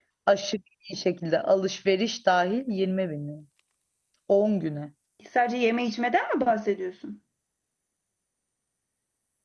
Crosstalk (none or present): none